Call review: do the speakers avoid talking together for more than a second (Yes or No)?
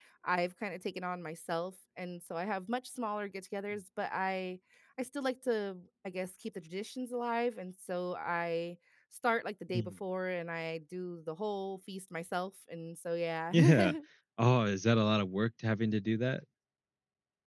Yes